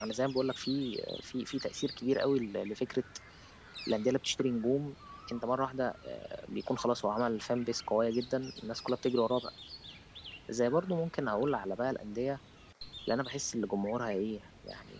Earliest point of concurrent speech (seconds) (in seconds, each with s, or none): none